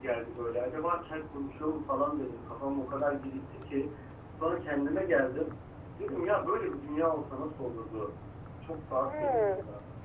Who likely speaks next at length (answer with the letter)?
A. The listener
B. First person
A